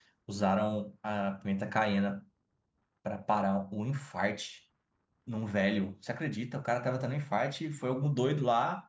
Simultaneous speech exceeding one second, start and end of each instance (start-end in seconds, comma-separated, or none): none